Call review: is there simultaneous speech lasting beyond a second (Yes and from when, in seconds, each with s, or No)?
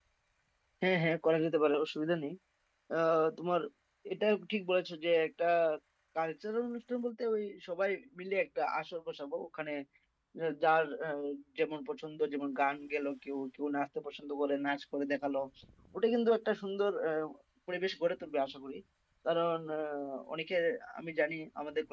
No